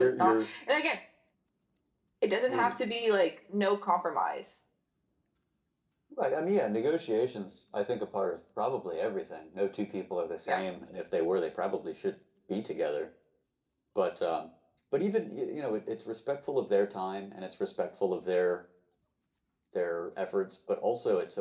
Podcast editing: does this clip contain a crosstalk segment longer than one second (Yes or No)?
No